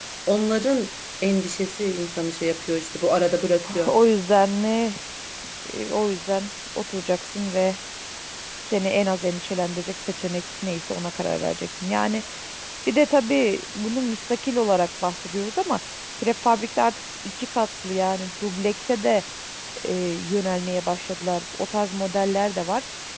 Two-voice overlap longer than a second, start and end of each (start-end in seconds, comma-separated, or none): none